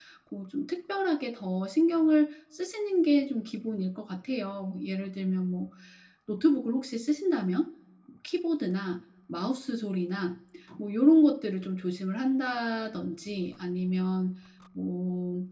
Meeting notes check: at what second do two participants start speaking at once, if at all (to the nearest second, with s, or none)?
none